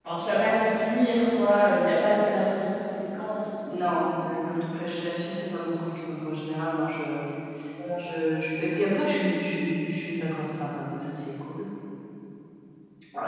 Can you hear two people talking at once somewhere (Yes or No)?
No